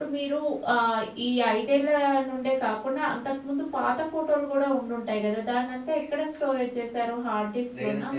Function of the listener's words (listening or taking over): taking over